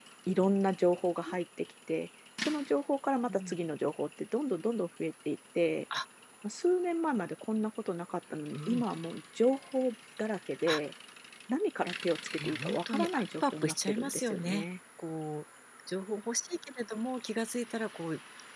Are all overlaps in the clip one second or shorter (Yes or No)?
No